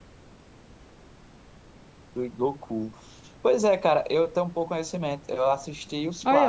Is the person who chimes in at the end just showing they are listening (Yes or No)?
No